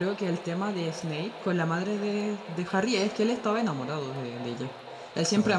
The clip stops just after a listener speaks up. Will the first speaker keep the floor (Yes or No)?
Yes